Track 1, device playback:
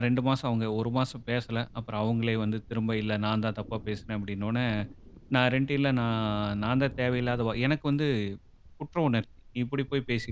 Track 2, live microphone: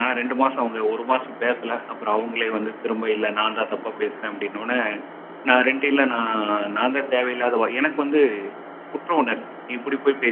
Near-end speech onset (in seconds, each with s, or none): none